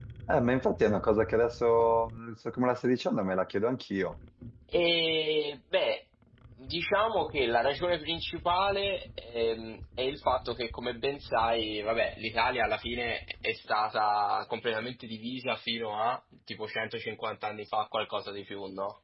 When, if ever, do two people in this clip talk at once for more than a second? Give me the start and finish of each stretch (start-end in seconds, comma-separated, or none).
none